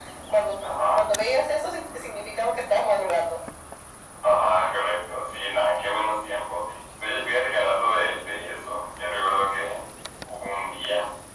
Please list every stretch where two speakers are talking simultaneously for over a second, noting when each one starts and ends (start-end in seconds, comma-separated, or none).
none